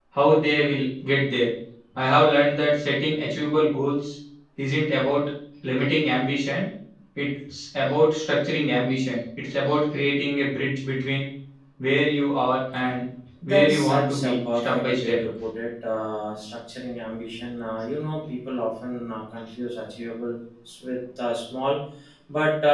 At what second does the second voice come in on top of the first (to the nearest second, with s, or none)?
13 s